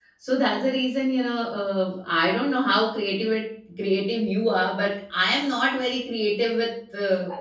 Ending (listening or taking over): taking over